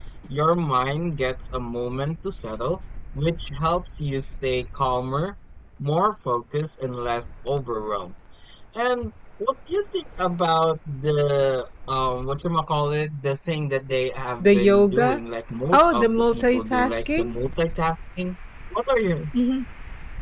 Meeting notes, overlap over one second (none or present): present